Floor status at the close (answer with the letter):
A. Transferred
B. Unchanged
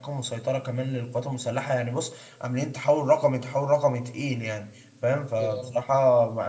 B